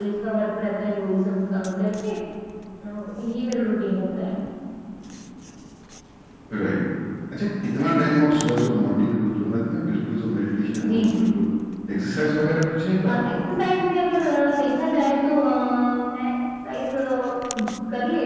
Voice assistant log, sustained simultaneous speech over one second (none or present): none